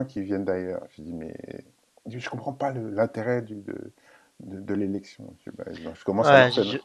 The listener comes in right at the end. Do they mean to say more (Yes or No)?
Yes